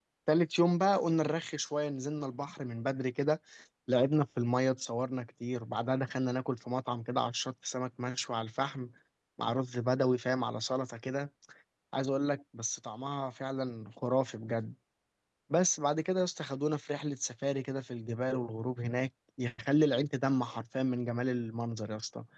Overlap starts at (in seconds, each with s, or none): none